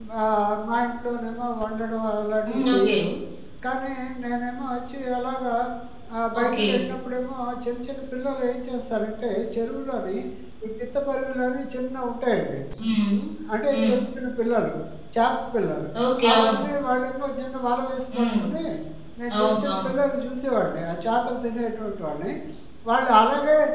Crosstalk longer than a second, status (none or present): none